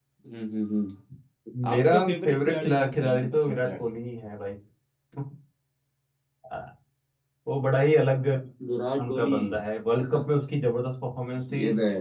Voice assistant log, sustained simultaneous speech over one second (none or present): present